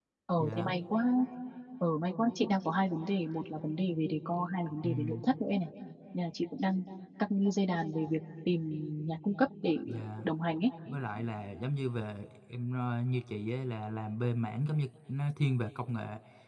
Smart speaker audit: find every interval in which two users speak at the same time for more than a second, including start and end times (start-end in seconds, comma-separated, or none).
none